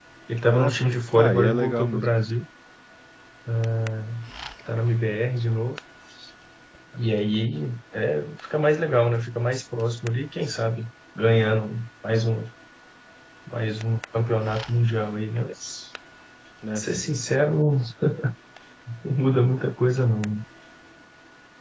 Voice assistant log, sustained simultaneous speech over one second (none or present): present